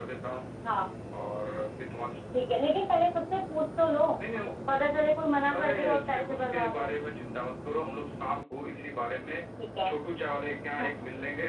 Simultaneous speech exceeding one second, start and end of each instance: 5.6-6.9

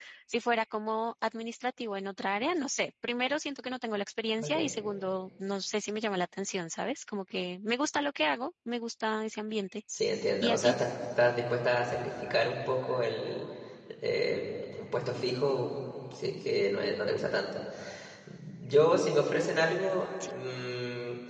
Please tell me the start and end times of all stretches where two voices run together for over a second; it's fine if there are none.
none

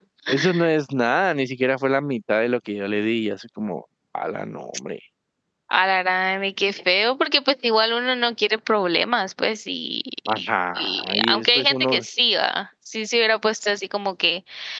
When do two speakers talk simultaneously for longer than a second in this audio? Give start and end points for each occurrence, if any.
10.8-12.0

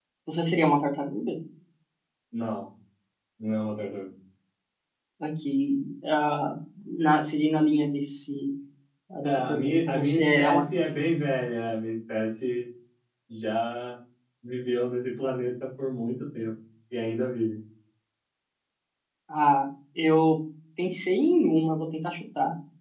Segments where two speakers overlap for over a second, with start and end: 9.2-10.6

